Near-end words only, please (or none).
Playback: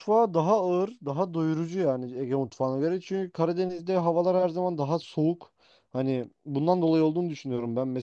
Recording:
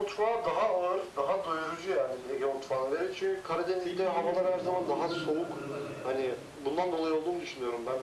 sebze yiyormuş gibi sağlıklı güzel mutfakları var ya.